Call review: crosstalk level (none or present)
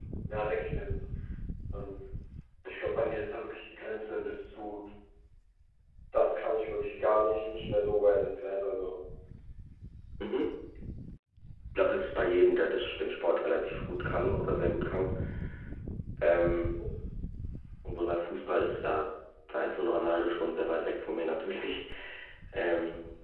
none